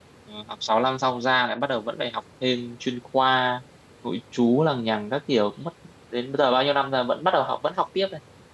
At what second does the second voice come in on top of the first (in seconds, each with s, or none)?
none